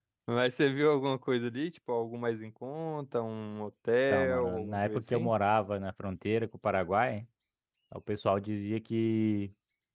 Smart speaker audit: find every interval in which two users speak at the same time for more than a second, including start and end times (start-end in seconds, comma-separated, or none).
4.1-5.3